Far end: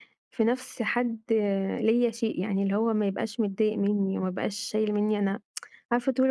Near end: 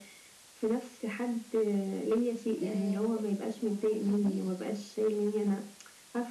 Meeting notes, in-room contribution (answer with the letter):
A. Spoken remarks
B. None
A